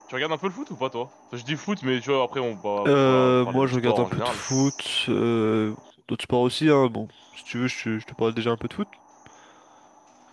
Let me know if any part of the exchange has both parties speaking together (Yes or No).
Yes